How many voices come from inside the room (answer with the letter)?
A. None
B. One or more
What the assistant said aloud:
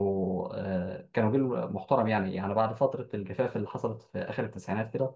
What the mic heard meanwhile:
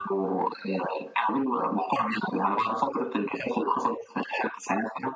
A